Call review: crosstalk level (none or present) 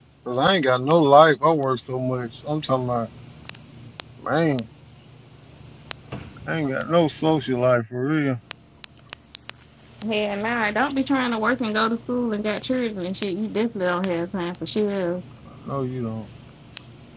none